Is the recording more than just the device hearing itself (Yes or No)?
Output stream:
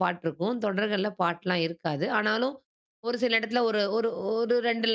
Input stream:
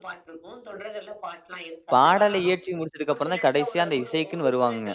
Yes